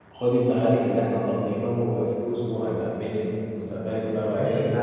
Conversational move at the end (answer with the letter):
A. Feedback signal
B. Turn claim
B